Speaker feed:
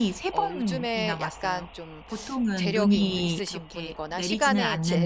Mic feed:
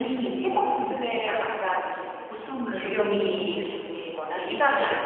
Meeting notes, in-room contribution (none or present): none